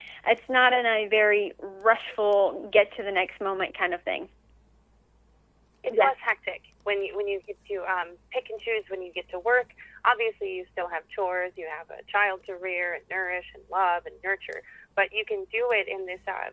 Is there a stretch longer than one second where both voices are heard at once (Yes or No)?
No